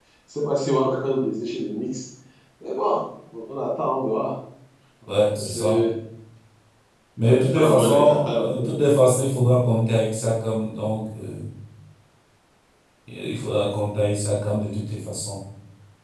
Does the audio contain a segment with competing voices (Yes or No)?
Yes